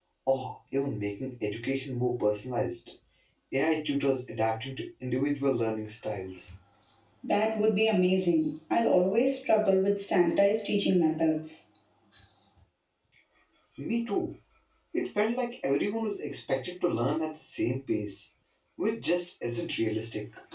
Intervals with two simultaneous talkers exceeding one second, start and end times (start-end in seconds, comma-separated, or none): none